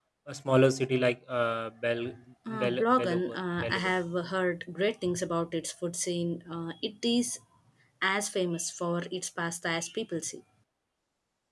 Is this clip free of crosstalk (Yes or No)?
No